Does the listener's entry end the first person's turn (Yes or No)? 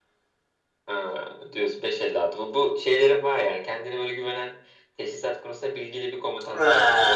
Yes